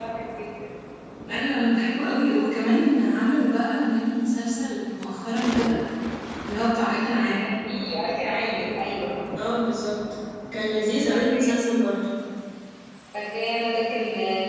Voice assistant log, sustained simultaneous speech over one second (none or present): none